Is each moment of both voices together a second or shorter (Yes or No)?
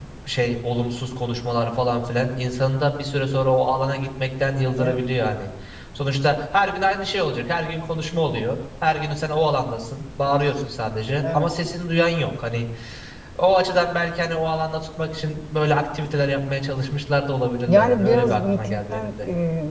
No